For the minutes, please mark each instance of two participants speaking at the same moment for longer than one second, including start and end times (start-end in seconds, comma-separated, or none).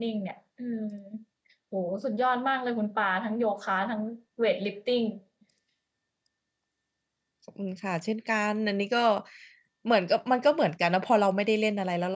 none